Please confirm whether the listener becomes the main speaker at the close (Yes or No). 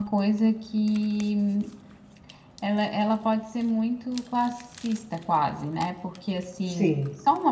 No